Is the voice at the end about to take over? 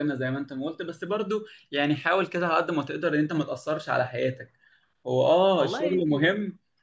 No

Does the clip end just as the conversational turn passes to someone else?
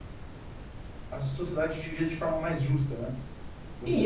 Yes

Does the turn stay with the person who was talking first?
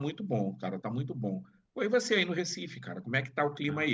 No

